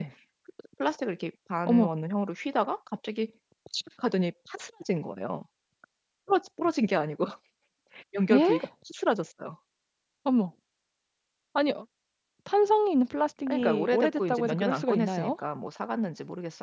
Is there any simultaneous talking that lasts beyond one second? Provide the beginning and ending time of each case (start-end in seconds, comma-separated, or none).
13.5-15.3